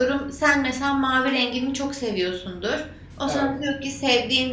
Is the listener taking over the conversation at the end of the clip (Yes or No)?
No